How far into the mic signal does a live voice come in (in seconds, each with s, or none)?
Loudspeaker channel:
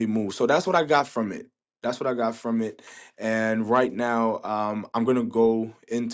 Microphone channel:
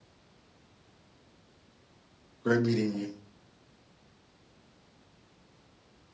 2.4 s